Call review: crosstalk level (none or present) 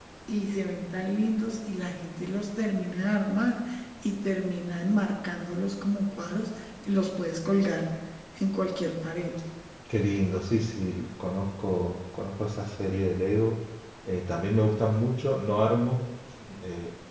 none